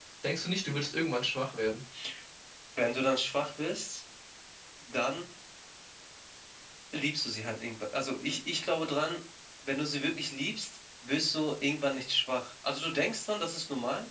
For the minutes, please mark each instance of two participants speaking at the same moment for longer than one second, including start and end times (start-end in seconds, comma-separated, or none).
none